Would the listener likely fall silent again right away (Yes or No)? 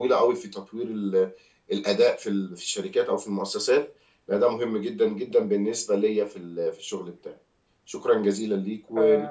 No